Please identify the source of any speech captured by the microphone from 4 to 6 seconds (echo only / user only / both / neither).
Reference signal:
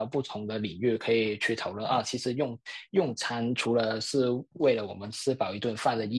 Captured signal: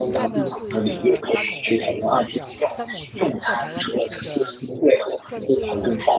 both